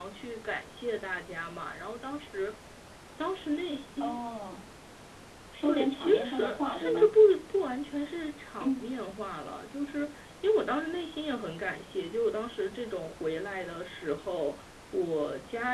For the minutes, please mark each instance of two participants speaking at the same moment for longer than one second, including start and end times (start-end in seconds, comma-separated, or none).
5.6-7.1